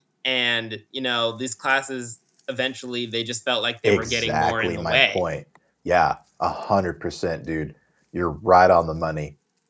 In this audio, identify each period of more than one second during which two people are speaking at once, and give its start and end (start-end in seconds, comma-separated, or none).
3.8-5.2